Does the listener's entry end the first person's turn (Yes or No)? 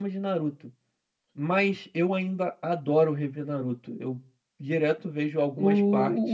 Yes